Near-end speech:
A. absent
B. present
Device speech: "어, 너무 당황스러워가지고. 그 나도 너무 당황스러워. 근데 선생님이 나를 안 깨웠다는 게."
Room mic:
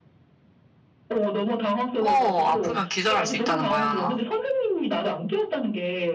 B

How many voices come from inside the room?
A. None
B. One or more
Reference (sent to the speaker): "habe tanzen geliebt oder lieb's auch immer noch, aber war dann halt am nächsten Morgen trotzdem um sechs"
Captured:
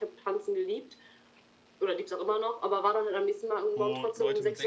B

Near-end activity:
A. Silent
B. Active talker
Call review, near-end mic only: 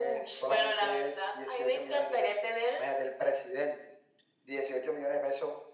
A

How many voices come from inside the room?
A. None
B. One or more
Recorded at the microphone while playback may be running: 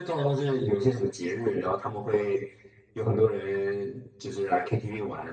A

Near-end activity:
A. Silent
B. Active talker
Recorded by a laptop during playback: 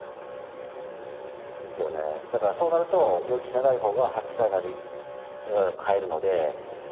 A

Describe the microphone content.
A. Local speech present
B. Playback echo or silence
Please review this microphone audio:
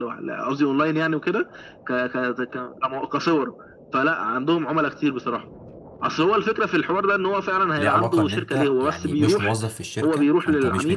A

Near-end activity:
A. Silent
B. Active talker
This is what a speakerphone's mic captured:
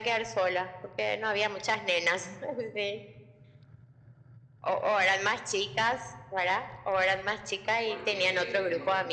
B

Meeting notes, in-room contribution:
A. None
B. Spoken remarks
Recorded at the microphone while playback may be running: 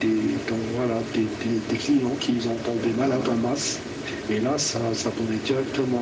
B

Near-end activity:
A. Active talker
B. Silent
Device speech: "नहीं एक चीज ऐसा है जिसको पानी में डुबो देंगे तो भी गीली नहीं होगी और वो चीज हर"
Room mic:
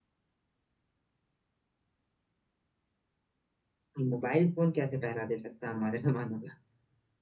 A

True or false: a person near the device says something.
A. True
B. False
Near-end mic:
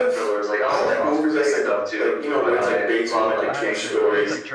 A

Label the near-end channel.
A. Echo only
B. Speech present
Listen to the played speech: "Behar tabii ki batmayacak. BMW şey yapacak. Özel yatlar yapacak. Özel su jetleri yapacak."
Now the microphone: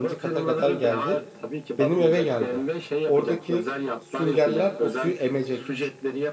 B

